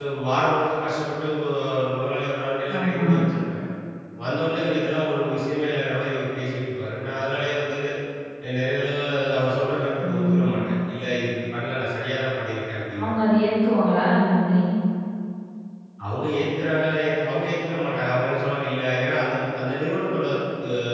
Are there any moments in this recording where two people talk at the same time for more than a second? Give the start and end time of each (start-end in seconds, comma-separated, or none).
none